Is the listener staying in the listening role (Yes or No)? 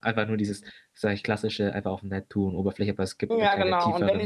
No